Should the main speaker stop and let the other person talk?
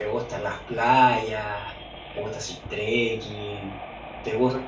Yes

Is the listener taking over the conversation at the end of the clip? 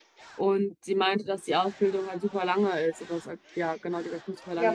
Yes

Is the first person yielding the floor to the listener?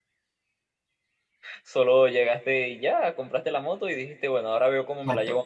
Yes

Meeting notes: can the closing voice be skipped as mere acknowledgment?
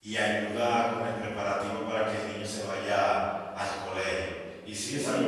No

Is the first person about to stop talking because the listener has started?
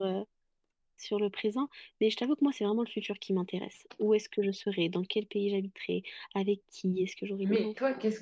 Yes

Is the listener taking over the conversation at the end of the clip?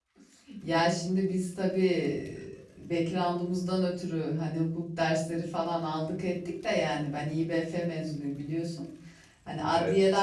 No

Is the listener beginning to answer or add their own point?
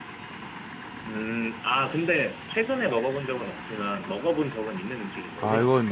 Yes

